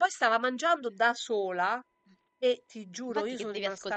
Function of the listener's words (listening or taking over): taking over